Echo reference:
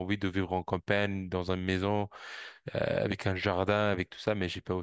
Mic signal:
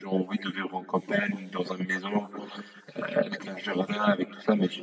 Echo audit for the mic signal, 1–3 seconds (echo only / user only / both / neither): echo only